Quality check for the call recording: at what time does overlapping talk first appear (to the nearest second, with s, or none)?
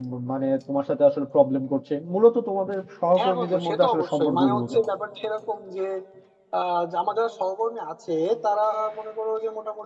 3 s